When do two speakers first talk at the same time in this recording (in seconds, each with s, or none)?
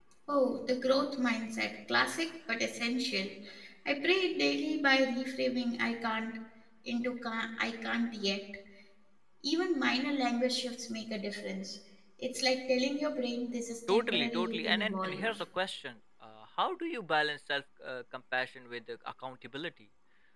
13.9 s